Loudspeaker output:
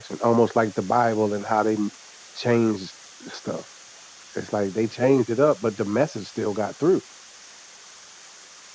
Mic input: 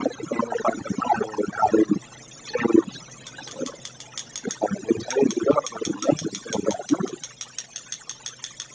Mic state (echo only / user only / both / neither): echo only